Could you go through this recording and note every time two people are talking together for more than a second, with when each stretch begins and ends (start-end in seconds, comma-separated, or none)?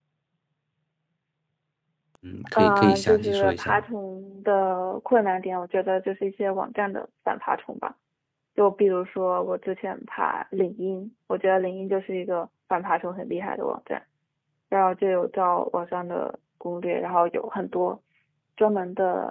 2.5-3.8